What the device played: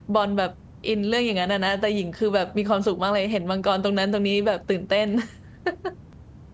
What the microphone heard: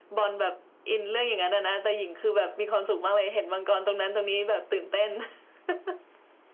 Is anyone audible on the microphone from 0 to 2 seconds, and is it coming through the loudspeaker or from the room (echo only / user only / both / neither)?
echo only